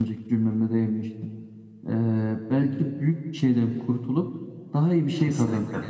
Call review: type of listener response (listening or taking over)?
listening